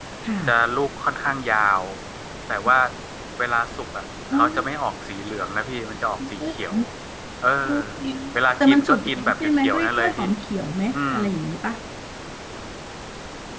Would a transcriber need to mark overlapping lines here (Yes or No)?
Yes